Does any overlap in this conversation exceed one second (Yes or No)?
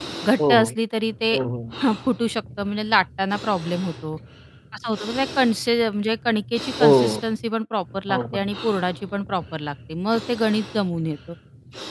No